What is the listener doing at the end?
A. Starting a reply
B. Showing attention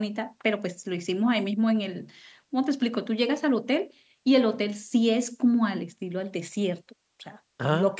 B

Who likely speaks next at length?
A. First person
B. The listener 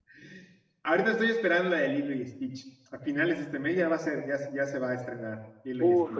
B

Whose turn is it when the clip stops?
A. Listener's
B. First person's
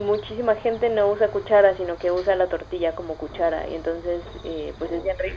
B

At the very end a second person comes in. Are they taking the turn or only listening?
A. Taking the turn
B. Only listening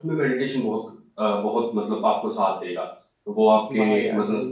A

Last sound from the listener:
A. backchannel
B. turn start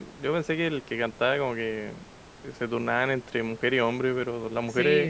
B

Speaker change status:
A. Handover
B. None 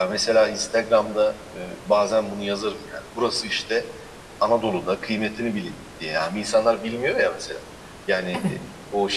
B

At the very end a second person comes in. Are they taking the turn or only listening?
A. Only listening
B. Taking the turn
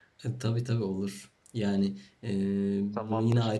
A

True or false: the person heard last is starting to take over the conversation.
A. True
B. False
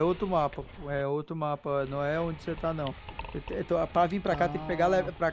B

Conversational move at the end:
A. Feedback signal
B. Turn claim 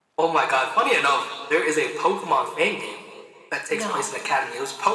A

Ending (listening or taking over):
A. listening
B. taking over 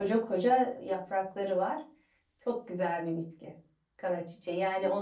A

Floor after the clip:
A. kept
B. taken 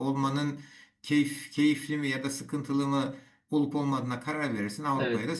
B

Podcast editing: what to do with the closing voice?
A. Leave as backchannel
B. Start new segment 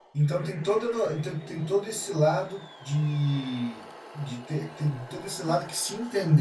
A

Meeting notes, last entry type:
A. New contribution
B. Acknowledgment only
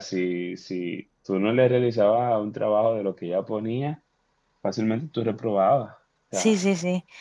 A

